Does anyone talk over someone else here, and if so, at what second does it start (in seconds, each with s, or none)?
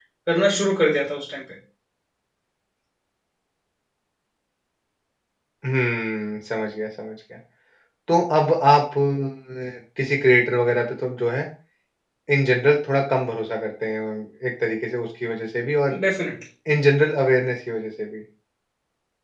none